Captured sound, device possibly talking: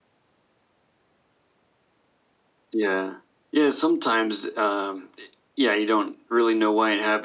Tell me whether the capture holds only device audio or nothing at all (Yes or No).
Yes